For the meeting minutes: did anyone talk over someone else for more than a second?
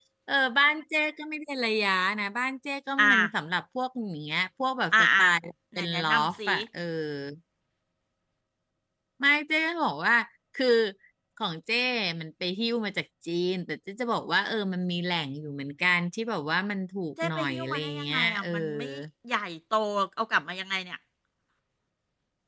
Yes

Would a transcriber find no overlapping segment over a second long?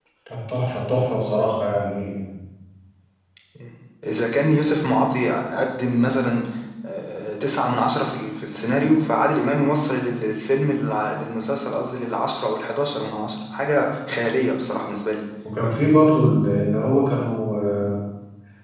Yes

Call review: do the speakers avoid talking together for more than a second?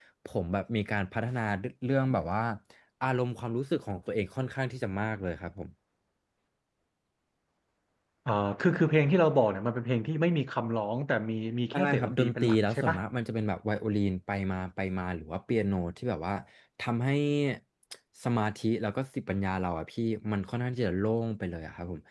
No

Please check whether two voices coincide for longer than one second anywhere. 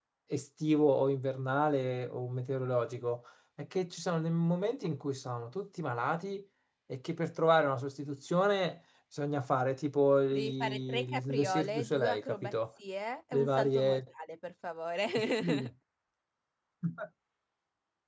Yes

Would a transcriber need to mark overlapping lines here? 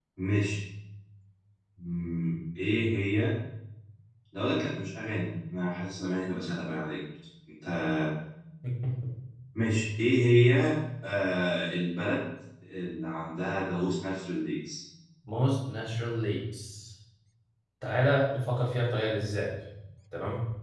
No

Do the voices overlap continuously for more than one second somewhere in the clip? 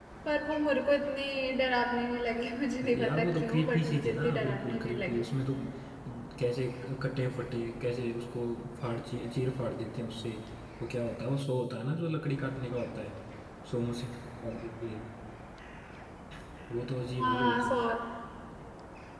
Yes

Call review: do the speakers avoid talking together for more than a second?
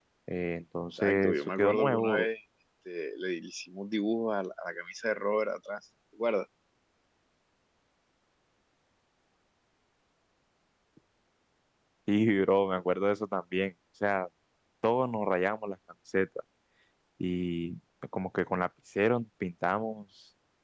No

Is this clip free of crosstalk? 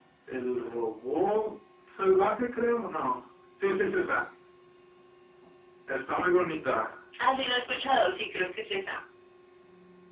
Yes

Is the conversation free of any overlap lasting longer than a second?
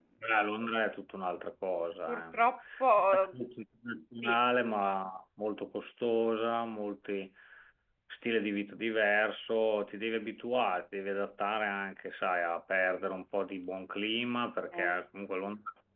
Yes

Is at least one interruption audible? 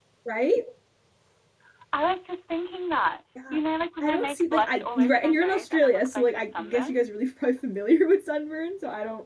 Yes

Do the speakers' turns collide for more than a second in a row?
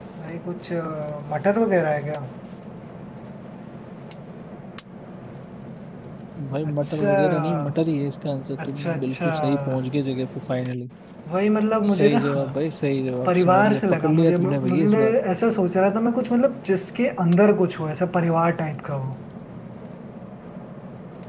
Yes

